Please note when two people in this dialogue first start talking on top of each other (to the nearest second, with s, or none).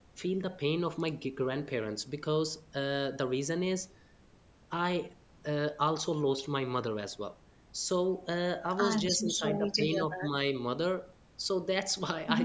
9 s